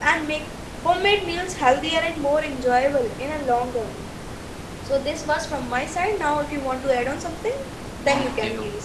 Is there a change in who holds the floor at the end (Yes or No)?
Yes